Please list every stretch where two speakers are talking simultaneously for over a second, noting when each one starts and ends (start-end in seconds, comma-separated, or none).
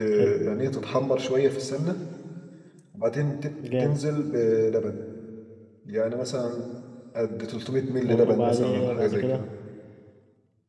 8.1-9.4